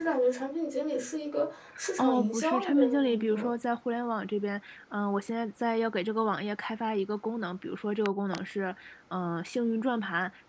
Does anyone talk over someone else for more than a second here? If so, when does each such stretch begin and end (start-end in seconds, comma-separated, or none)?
2.0-3.5